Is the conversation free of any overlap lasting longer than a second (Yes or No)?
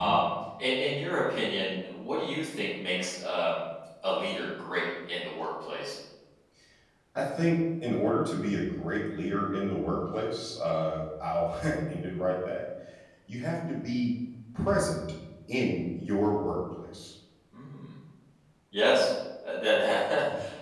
Yes